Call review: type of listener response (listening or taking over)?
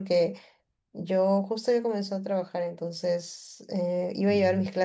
listening